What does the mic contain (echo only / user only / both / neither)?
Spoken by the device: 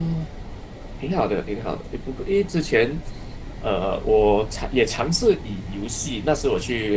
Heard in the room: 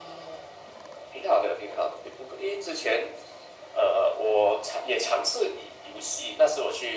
echo only